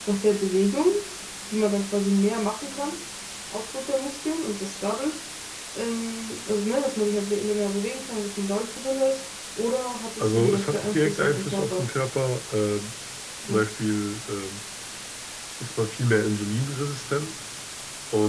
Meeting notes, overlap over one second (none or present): present